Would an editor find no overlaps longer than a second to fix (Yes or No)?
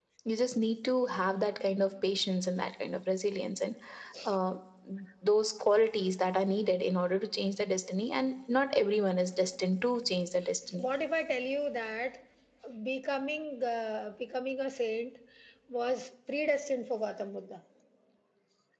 Yes